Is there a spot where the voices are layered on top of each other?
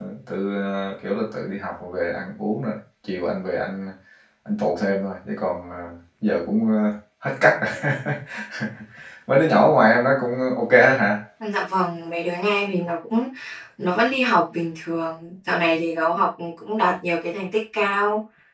No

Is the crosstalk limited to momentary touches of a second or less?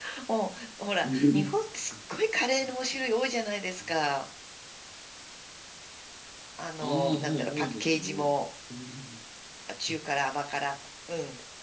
No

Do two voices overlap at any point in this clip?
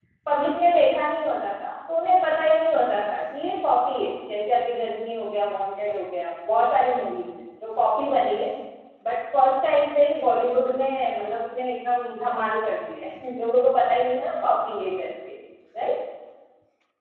No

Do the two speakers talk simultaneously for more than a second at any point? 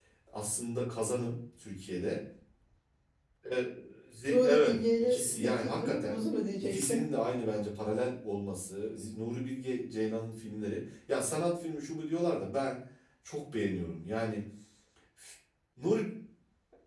Yes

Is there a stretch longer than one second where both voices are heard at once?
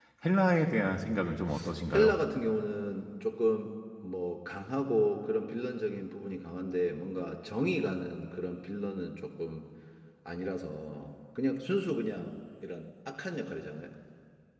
No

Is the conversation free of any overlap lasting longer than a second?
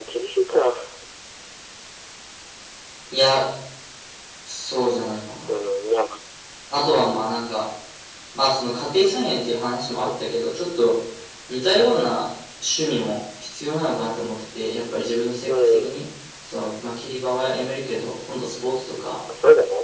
Yes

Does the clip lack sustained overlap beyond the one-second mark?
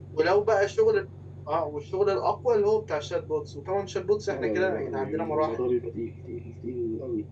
No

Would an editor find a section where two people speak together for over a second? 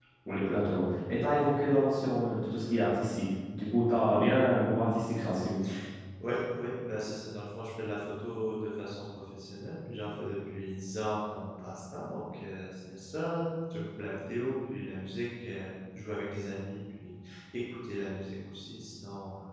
No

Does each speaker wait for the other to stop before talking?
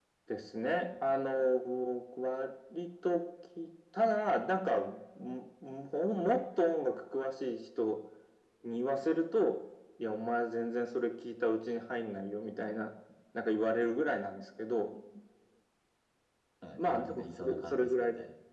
No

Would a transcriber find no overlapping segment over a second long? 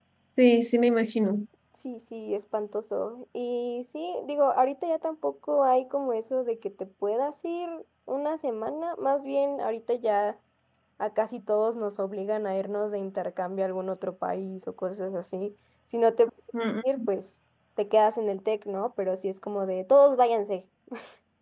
Yes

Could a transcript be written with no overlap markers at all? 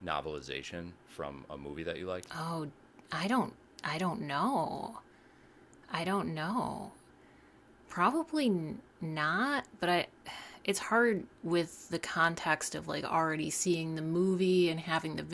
Yes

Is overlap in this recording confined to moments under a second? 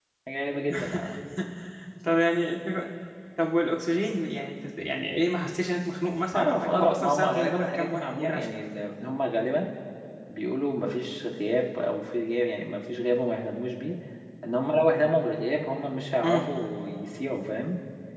No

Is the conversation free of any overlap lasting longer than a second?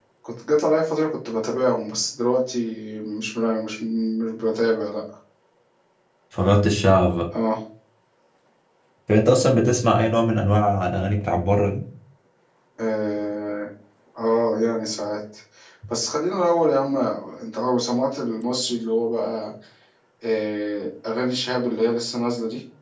Yes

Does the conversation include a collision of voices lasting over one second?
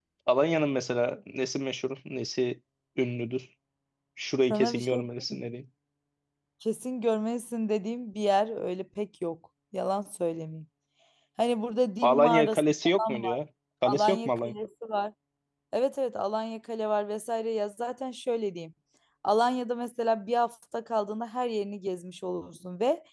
Yes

